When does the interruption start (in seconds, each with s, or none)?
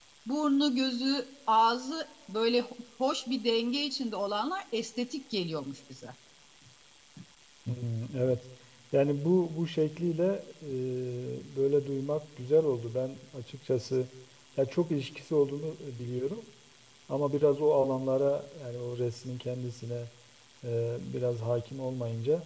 none